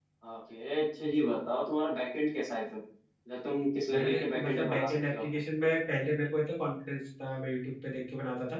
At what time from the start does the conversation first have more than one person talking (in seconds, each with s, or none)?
3.9 s